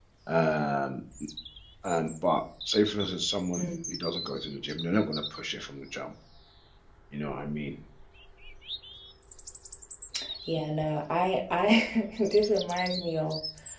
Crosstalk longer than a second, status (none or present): none